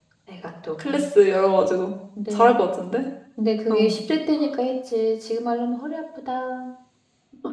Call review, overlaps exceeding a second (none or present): none